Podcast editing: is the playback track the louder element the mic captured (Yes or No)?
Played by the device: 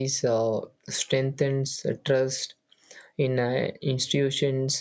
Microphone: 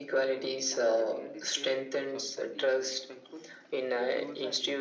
Yes